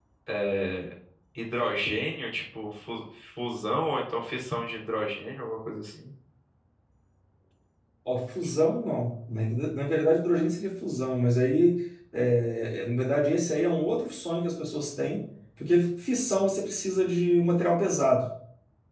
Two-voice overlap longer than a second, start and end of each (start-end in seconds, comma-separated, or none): none